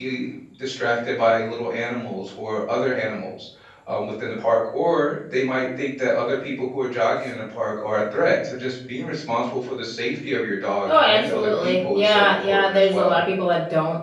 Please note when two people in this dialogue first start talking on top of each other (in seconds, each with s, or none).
10.8 s